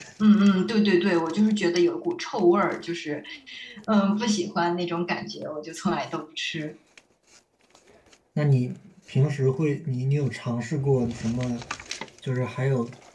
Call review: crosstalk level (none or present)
none